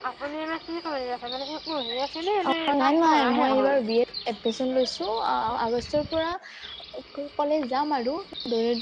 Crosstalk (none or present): present